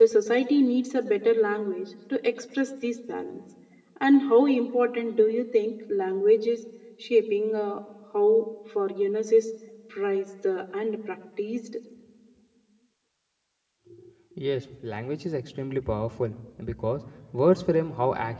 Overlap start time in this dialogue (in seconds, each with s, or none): none